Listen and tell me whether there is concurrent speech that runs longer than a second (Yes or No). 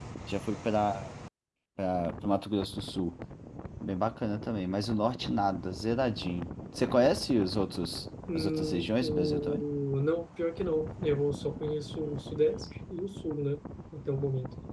Yes